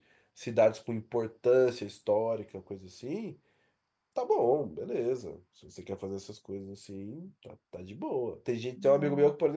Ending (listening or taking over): listening